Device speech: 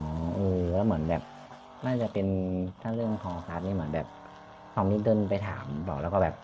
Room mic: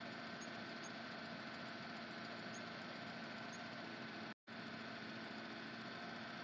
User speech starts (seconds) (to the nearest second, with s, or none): none